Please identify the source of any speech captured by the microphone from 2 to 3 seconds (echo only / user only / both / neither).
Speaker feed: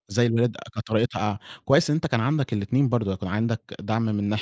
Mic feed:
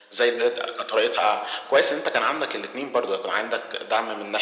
echo only